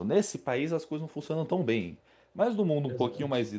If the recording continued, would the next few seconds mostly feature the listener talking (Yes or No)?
No